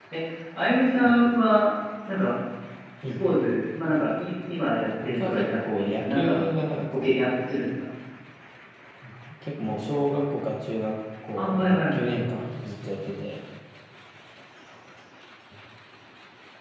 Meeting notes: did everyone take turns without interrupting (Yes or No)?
No